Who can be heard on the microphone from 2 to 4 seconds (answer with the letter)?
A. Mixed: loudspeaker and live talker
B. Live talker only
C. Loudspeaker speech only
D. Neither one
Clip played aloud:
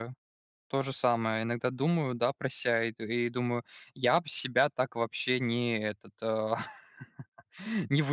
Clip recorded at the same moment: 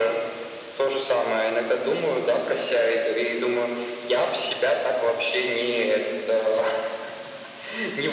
C